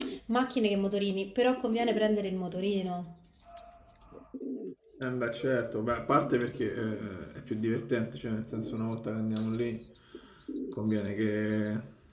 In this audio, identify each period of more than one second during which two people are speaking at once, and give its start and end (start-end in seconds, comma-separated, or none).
none